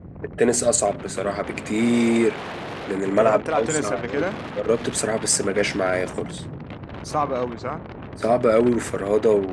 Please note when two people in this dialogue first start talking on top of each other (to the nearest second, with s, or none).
3 s